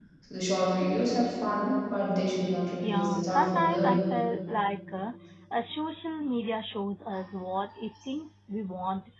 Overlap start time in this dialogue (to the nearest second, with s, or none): 3 s